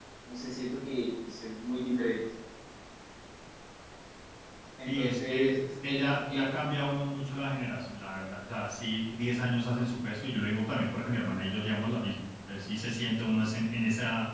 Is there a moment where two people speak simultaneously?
Yes, from 4.9 s

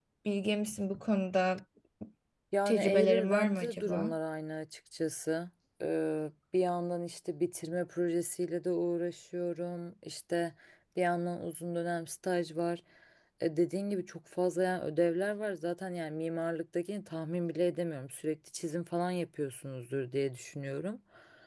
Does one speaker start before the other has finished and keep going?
Yes, from 2.7 s

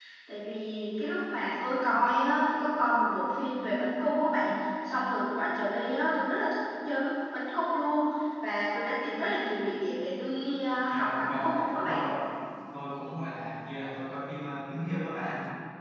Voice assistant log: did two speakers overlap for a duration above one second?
Yes, from 10.9 s

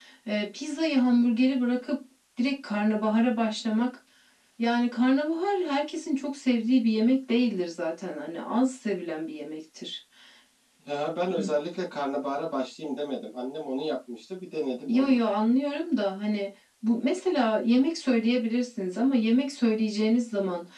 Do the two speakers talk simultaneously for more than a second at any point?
No

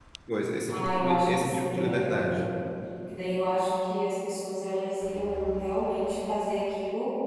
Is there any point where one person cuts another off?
Yes, from 0.7 s

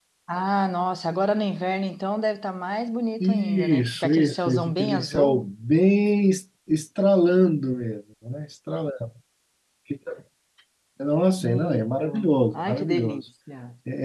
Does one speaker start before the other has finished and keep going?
Yes, from 3.2 s

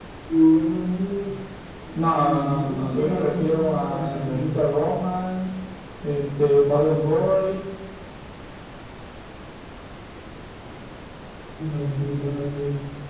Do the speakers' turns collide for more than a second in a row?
Yes, from 2.2 s

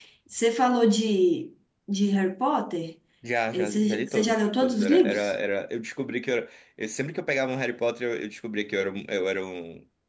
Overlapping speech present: Yes, from 3.5 s

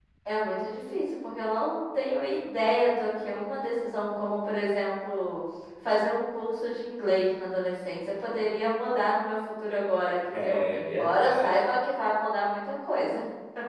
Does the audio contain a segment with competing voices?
Yes, from 10.2 s

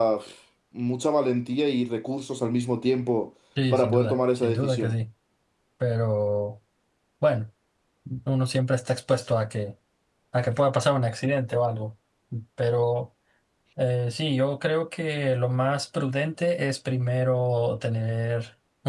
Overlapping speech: Yes, from 3.6 s

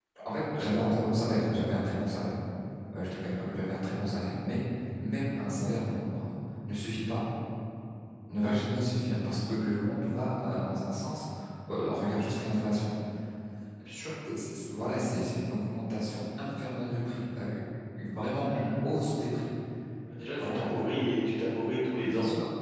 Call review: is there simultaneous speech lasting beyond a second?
No

